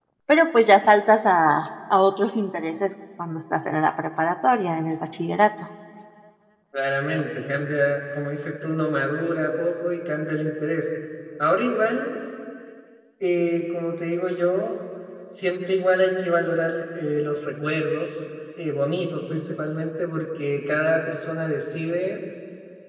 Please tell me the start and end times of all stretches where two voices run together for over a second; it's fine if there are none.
none

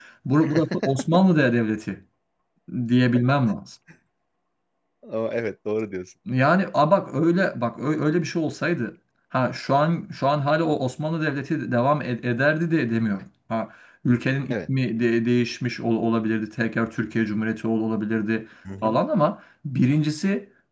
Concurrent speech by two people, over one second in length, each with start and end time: none

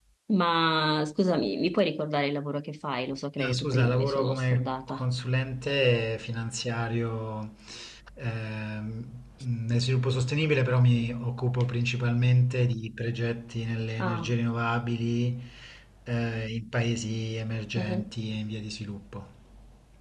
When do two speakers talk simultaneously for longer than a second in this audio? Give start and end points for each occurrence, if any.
3.4-5.0

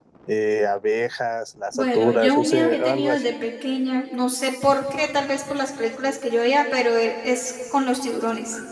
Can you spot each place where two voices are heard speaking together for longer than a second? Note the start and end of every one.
1.7-3.3

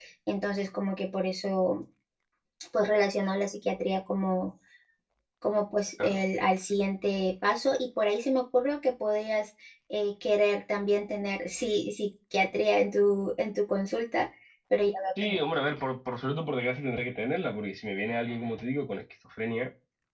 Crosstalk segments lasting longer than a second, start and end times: none

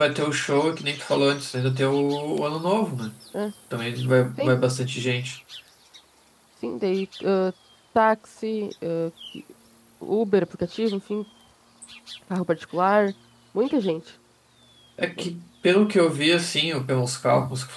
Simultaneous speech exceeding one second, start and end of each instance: none

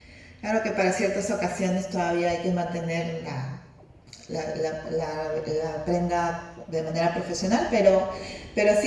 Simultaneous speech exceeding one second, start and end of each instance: none

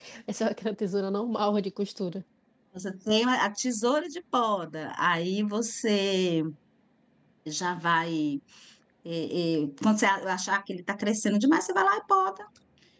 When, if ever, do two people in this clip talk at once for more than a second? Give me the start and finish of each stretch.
none

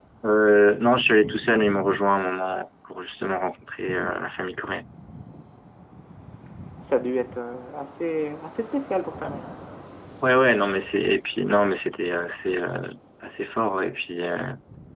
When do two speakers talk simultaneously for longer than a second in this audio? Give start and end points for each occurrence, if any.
none

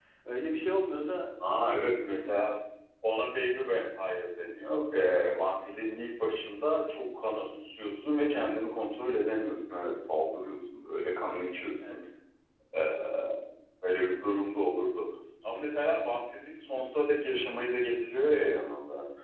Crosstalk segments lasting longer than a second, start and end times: none

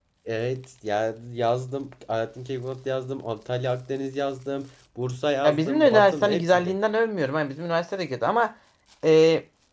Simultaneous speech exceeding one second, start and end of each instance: 5.5-6.8

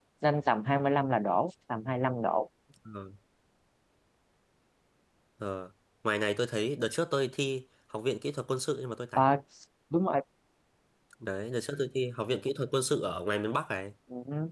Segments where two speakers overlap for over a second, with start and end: none

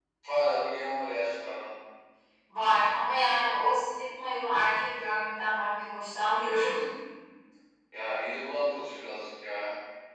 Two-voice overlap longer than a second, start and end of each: none

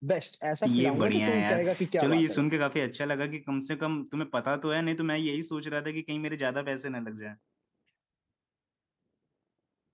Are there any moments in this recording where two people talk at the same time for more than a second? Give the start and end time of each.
0.7-2.5

